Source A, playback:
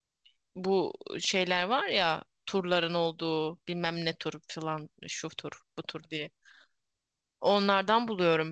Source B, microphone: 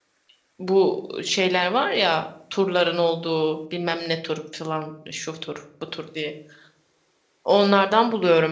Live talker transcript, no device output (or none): none